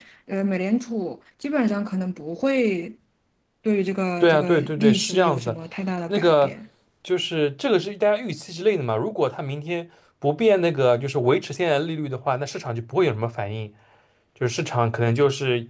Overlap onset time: 4.2 s

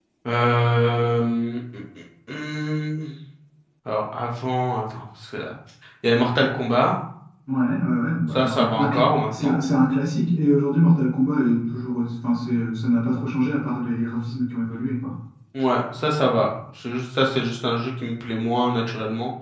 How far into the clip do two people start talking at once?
8.3 s

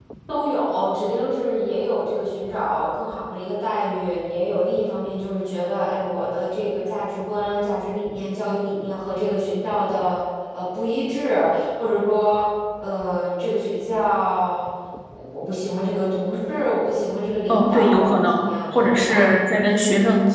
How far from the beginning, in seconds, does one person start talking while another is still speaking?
17.5 s

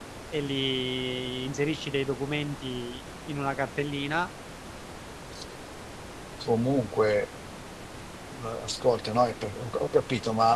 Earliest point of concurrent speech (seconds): none

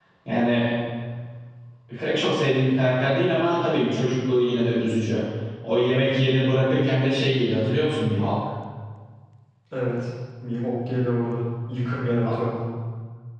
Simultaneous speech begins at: none

